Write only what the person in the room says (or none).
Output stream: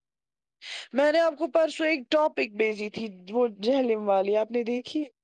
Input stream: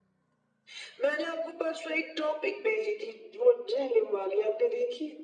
none